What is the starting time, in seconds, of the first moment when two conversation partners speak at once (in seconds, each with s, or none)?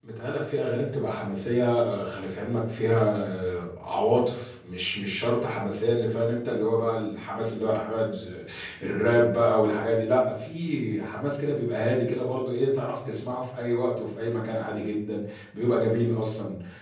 none